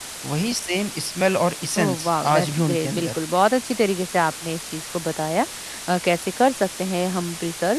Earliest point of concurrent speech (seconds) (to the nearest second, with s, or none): 2 s